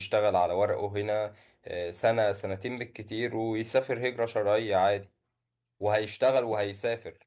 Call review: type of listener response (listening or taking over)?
listening